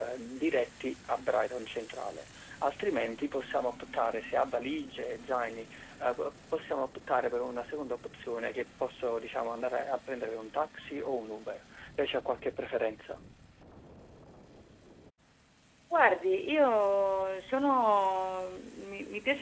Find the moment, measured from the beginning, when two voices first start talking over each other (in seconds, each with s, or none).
none